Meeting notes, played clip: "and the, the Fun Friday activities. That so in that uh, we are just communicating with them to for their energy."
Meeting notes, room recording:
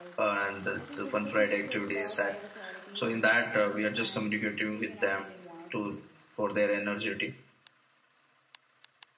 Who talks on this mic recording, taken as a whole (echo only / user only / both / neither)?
both